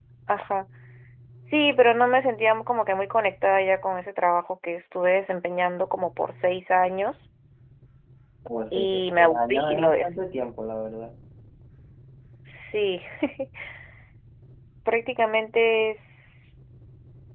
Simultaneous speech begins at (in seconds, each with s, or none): 8.7 s